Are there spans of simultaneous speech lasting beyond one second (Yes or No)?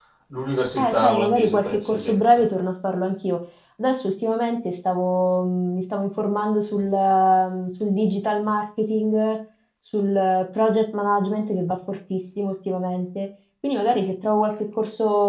Yes